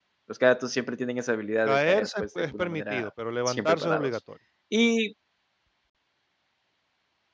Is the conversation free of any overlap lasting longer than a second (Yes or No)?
No